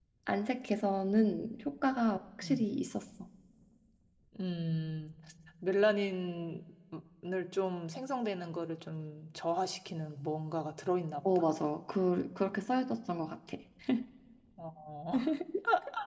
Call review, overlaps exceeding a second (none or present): none